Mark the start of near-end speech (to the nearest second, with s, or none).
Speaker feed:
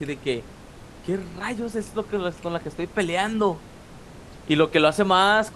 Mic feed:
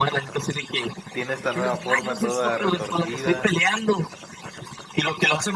1 s